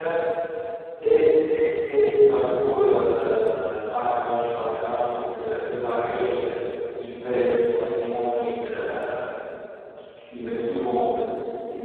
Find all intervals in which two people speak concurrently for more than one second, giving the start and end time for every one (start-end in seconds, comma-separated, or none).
none